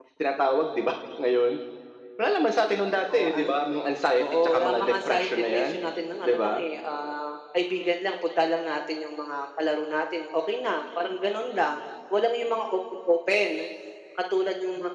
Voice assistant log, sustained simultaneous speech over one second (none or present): present